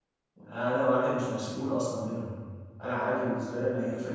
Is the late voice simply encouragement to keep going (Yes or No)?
Yes